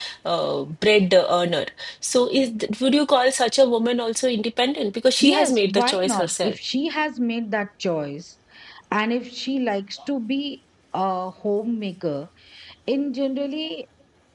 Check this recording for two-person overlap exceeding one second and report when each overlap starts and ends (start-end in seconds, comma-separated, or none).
5.2-6.6